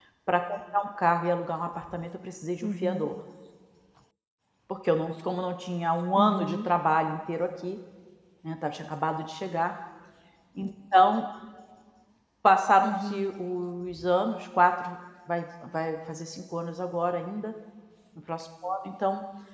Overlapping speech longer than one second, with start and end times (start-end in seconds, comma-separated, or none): none